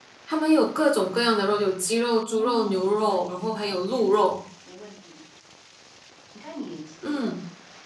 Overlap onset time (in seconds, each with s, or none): 2.3 s